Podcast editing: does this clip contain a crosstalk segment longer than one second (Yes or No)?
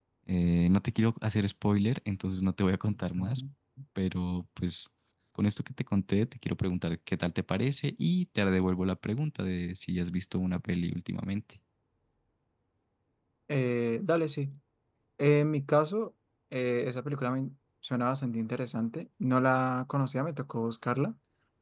No